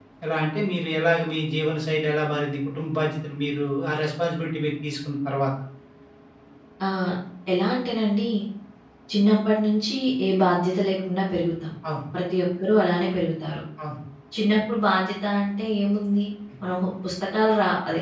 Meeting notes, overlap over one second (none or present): none